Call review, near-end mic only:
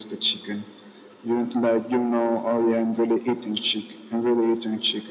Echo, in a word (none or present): present